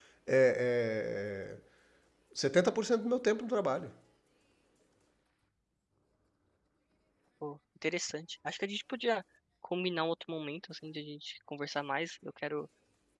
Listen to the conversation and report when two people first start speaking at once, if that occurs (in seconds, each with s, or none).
none